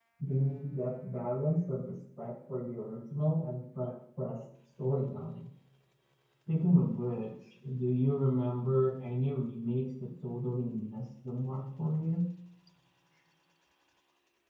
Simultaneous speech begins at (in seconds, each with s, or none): none